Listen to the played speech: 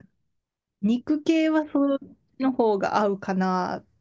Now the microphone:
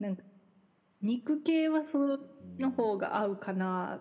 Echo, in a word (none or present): present